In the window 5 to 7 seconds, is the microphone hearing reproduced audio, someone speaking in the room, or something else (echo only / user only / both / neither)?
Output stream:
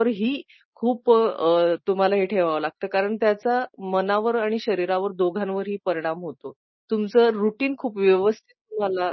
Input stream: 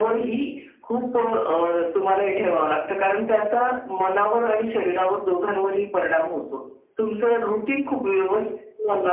echo only